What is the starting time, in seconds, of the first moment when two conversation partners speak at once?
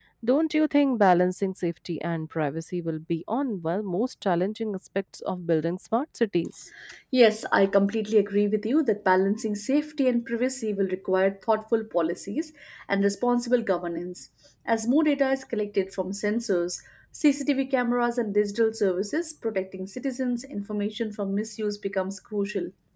none

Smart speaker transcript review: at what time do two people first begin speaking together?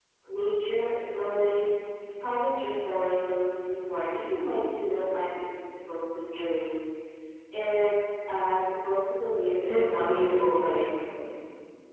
10 s

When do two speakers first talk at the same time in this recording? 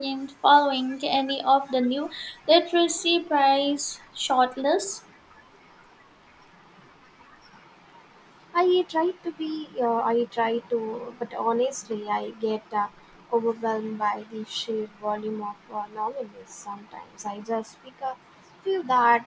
none

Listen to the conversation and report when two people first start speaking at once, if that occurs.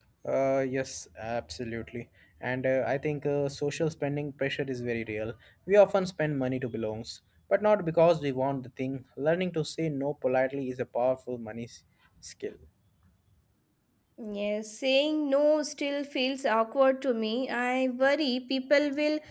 none

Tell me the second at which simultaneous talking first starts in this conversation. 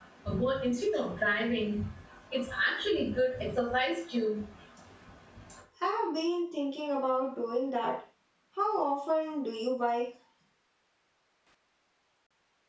none

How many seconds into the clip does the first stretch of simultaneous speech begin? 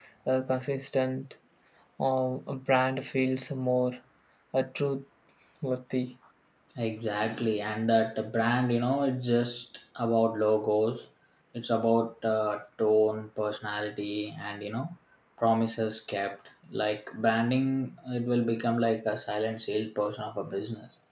none

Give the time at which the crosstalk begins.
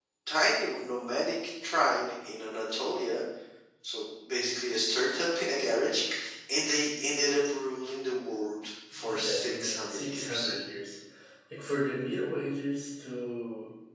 9 s

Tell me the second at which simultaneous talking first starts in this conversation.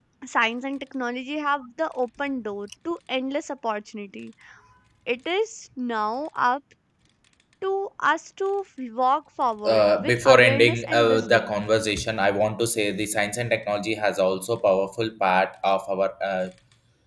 10 s

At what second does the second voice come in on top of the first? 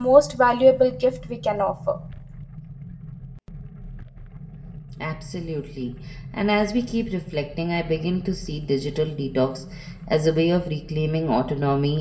none

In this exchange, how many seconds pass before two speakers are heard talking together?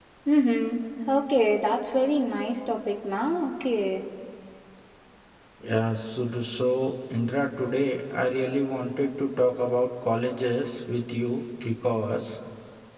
none

